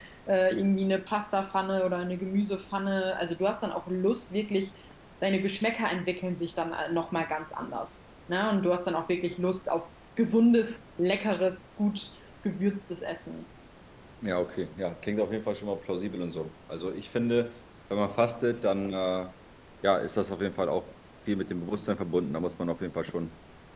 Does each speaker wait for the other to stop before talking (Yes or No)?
Yes